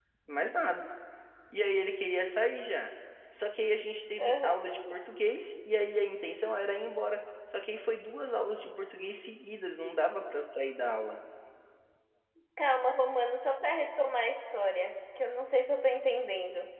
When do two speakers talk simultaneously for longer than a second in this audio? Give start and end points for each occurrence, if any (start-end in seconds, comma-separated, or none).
none